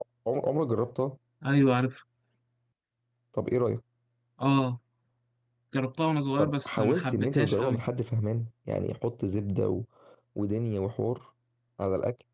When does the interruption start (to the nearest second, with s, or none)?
6 s